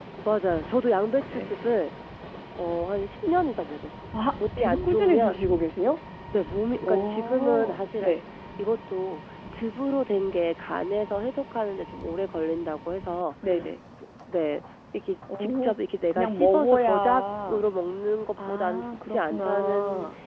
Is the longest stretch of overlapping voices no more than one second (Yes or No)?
No